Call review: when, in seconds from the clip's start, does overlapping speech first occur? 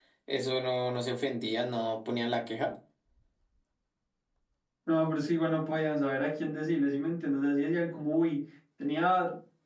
none

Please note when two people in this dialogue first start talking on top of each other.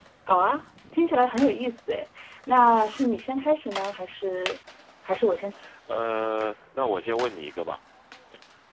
none

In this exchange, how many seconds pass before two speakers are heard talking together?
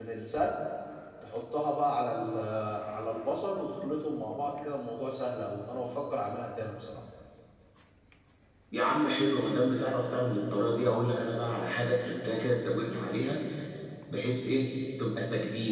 none

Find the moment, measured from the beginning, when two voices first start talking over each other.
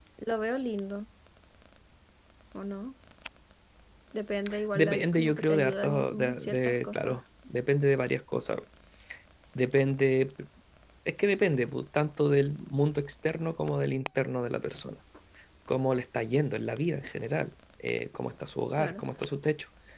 4.8 s

